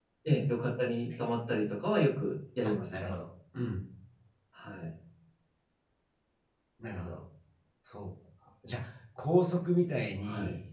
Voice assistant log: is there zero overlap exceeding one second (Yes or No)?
Yes